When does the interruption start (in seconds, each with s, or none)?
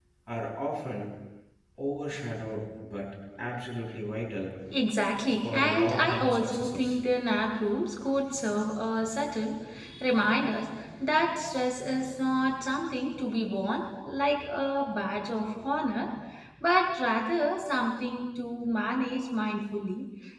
5.4 s